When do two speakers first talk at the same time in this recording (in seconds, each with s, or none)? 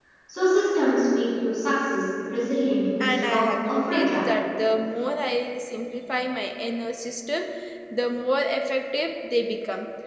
3.0 s